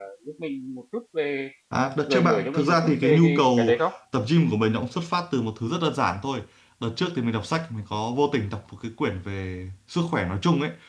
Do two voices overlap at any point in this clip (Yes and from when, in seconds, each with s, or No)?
Yes, from 2.1 s